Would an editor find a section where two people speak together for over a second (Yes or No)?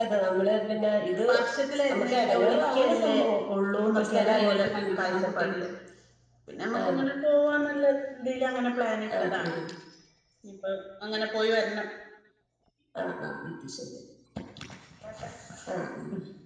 Yes